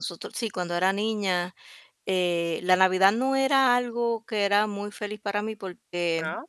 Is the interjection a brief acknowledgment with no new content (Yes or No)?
Yes